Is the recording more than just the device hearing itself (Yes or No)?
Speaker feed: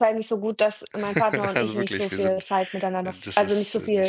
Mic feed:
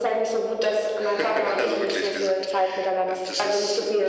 No